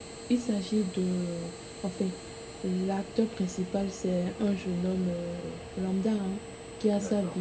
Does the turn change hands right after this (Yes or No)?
No